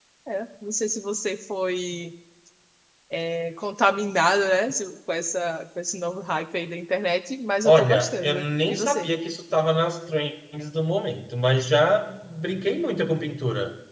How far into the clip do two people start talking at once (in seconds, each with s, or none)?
7.6 s